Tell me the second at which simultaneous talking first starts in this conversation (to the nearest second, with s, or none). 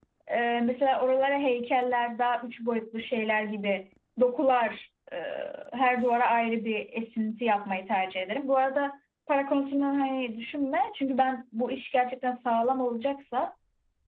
none